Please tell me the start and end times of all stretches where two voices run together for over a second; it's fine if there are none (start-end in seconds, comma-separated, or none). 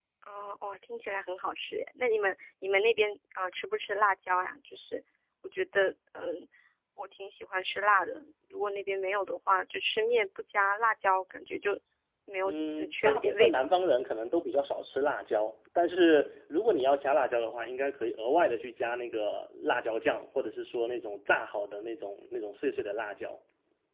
12.4-13.6